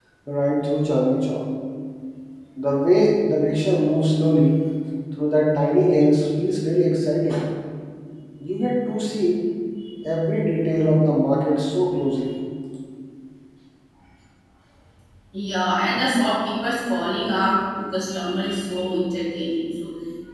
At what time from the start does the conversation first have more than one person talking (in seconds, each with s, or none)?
none